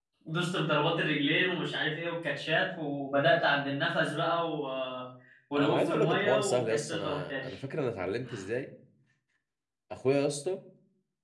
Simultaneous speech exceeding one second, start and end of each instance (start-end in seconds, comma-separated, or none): 5.6-7.5